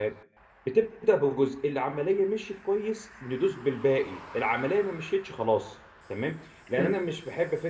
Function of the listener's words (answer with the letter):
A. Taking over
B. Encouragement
B